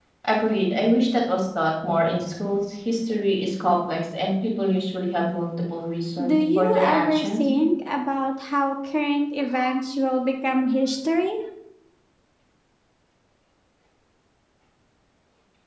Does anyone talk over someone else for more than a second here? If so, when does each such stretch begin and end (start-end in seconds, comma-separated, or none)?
6.2-7.5